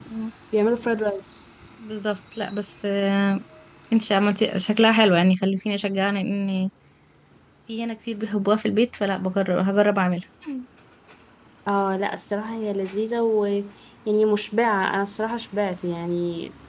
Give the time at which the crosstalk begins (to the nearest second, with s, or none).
none